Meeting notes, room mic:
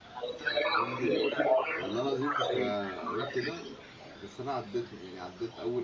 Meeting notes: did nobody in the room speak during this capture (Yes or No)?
No